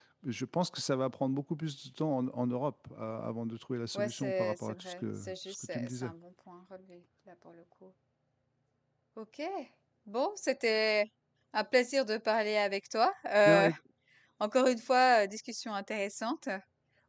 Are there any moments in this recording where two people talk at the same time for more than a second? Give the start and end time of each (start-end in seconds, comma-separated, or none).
3.9-6.1